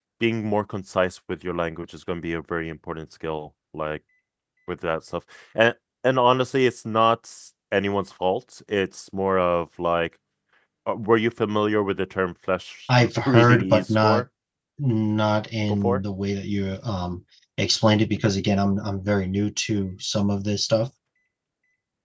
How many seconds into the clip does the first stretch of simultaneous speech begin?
13.0 s

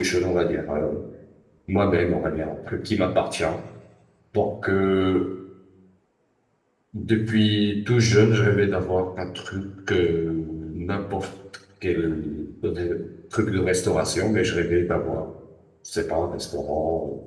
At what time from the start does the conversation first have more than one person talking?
none

